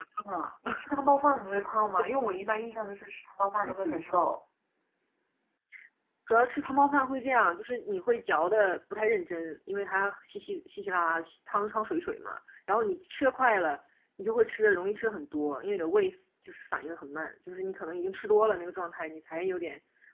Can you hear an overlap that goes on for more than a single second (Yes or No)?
No